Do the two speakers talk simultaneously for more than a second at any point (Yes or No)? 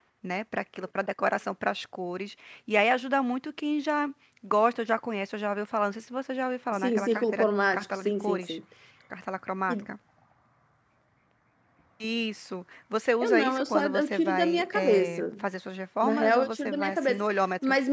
Yes